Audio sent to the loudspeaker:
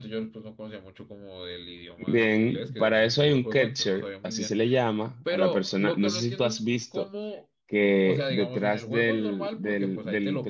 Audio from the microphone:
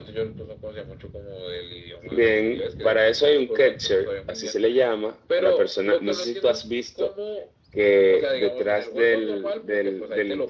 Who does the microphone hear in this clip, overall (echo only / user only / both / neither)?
echo only